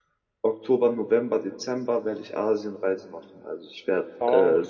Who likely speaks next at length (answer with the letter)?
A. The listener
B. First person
B